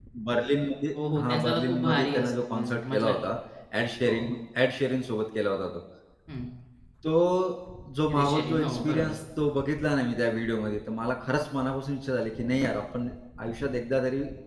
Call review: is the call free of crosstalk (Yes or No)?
No